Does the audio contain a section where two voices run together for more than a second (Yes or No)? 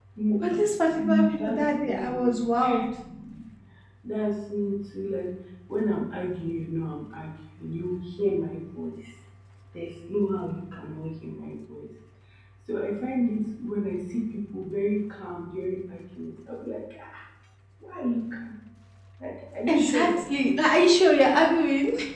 Yes